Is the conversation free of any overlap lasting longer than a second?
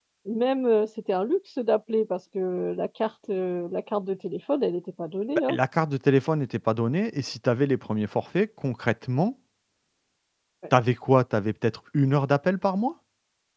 Yes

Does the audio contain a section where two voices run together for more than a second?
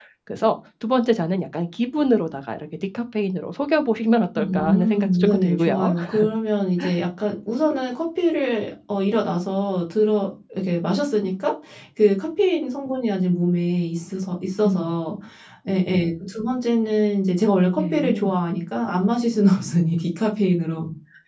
Yes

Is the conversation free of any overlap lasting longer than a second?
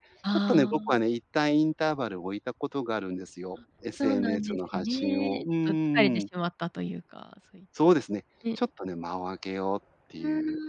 No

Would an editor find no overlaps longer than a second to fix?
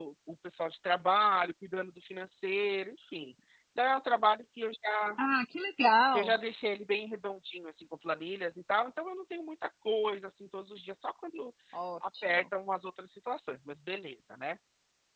Yes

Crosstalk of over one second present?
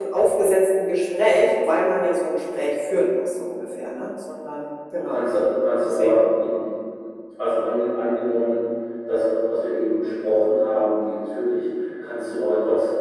No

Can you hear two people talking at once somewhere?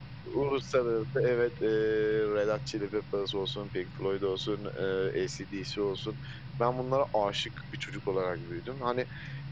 No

